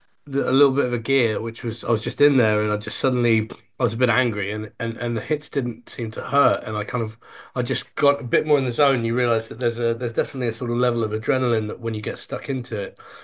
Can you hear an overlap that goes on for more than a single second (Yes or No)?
No